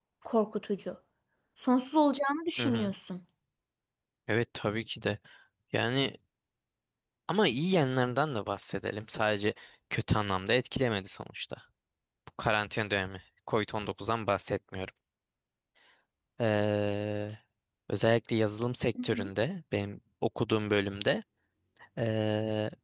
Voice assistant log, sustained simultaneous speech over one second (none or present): none